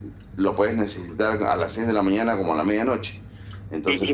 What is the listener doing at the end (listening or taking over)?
taking over